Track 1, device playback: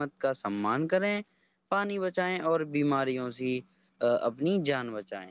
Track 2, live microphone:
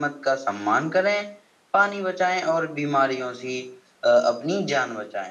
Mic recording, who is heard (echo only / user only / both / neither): echo only